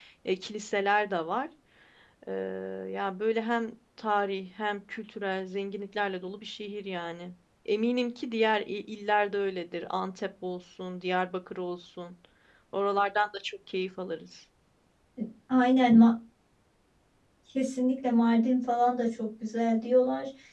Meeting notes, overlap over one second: none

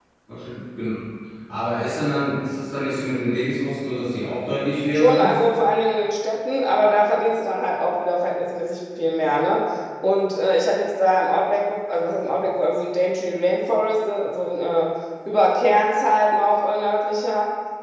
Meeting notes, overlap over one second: none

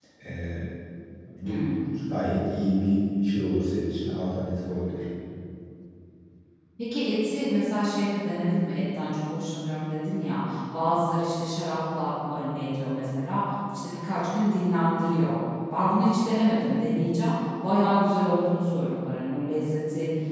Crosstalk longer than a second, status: none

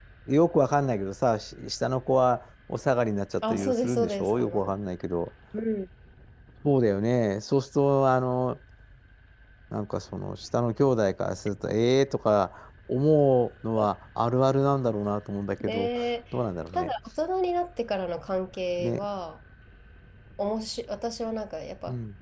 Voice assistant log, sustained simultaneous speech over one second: present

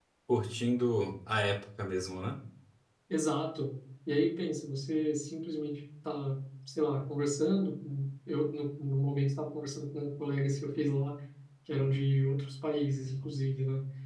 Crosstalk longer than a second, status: none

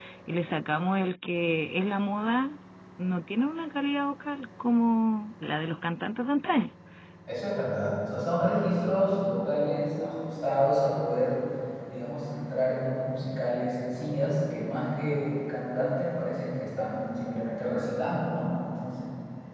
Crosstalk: none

